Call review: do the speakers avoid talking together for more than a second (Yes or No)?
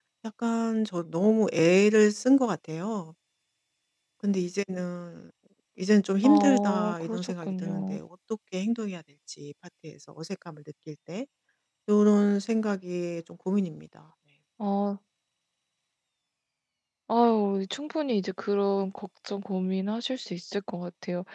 No